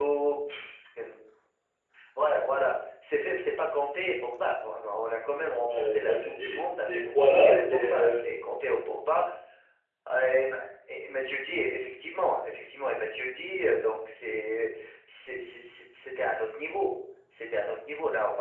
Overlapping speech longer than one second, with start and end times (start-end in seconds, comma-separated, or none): 5.7-8.2